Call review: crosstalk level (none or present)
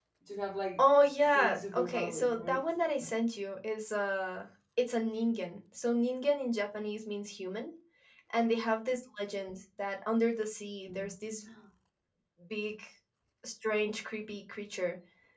present